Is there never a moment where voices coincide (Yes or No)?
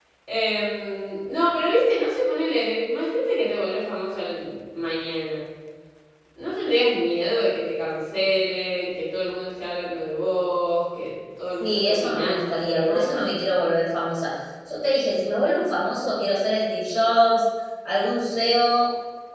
No